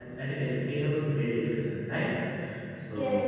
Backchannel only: No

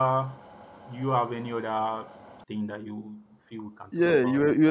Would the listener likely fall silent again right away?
No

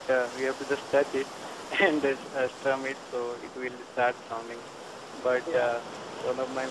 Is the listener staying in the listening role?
Yes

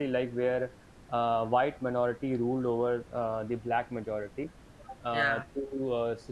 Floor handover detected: No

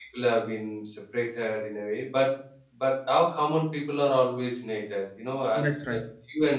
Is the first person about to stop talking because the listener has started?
No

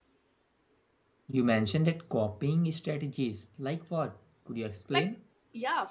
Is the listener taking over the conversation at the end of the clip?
Yes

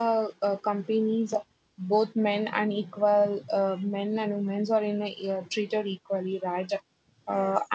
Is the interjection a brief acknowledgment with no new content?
Yes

